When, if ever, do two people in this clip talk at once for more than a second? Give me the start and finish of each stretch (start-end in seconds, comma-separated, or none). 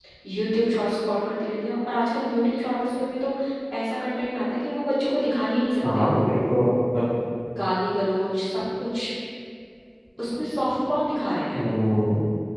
none